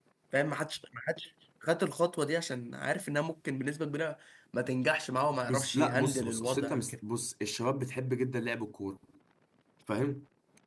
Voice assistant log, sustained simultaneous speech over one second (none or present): present